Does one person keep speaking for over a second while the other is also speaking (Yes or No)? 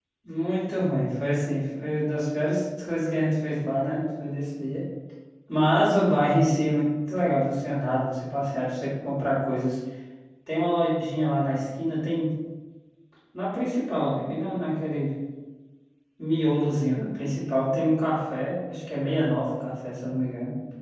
No